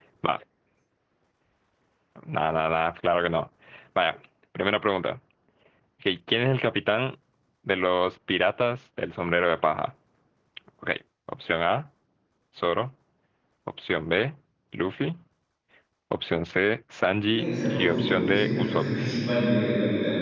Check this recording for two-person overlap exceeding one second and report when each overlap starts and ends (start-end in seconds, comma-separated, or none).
17.3-18.8